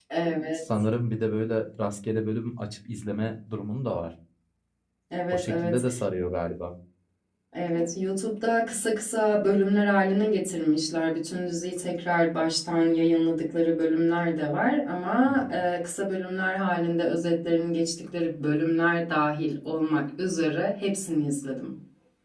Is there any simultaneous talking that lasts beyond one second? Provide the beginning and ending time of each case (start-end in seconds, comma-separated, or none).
none